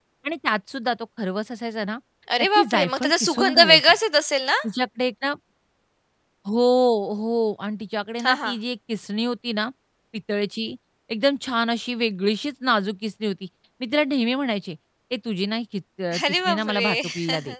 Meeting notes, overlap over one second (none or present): present